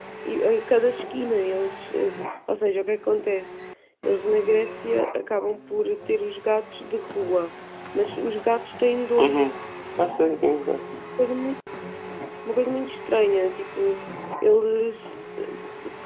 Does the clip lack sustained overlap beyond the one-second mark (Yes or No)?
Yes